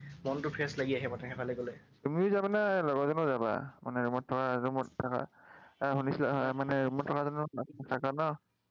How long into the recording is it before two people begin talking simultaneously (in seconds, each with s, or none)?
none